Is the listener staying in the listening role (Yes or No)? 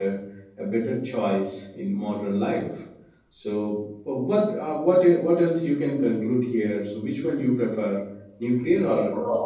No